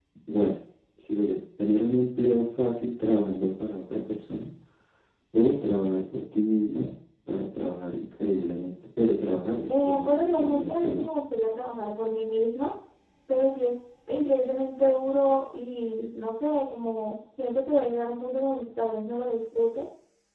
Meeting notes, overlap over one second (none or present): present